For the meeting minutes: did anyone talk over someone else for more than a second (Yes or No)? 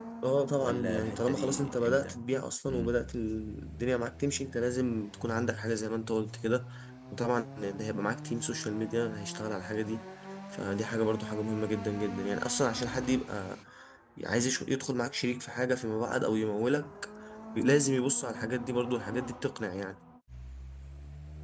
Yes